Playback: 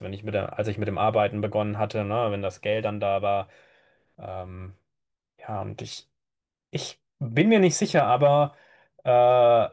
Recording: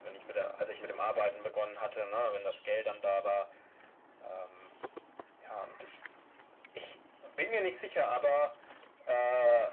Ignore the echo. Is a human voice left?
No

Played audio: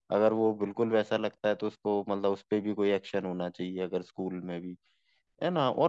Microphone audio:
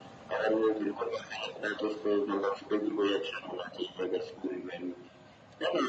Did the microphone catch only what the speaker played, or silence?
Yes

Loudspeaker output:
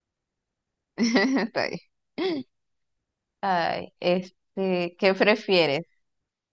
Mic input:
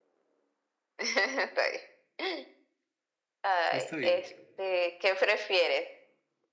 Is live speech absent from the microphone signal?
No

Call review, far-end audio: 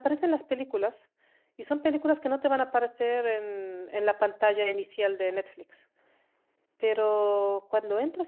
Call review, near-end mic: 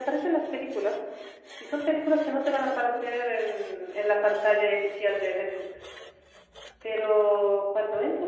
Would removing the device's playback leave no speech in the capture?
Yes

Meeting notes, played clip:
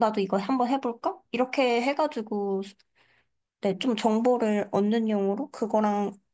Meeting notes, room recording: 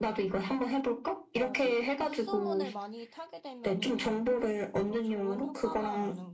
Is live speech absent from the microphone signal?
No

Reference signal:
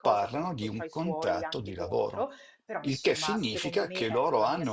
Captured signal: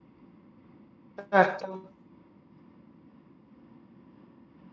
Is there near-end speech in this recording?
Yes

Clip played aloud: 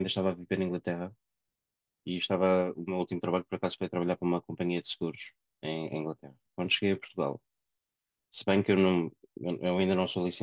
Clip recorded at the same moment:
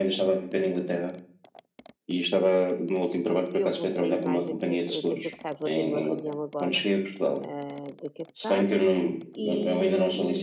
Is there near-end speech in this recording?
Yes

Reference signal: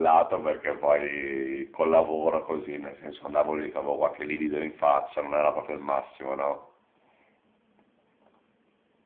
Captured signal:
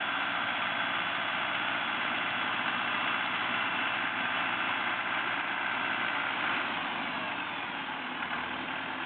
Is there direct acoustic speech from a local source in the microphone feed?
No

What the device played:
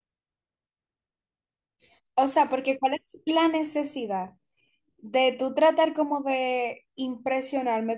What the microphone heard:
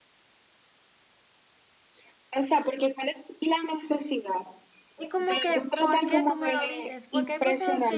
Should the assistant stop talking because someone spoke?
Yes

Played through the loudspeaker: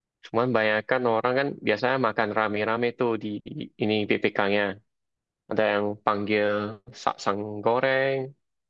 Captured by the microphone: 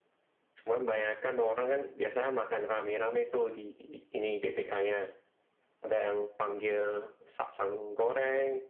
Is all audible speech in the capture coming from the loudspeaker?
Yes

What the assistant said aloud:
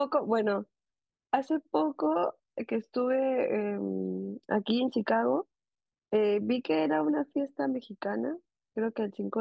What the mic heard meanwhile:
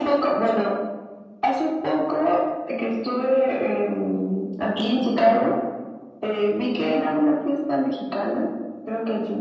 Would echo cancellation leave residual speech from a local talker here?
No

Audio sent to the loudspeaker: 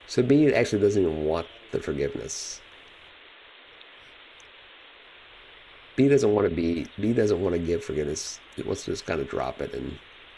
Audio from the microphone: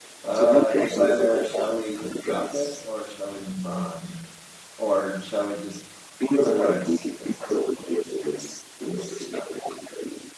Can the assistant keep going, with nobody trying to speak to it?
No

